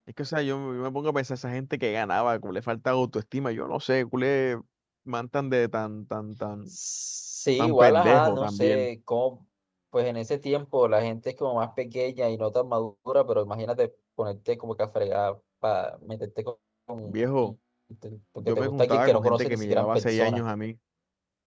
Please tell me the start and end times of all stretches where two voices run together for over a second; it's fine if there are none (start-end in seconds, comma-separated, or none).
7.6-8.9, 18.4-20.4